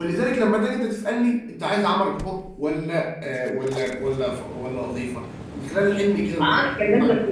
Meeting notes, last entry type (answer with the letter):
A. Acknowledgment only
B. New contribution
B